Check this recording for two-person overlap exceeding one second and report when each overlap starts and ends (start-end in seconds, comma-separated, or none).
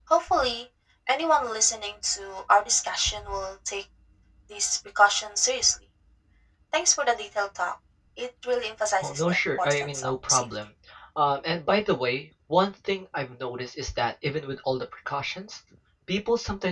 9.0-10.4